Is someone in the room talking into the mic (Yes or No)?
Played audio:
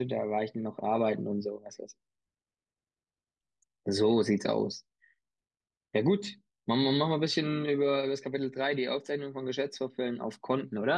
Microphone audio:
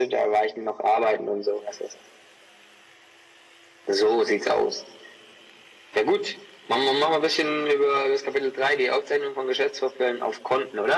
No